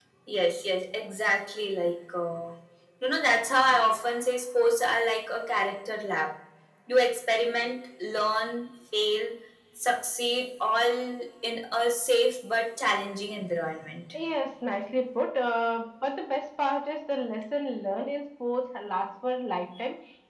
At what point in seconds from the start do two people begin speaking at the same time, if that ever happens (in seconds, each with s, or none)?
none